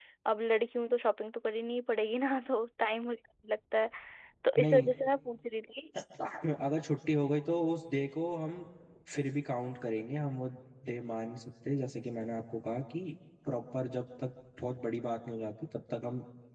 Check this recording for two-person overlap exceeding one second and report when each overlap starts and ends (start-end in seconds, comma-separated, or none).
none